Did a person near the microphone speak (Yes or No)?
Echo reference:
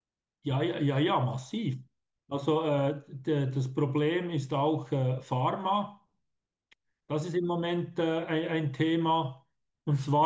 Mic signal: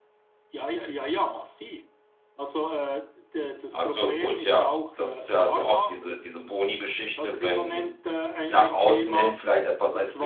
Yes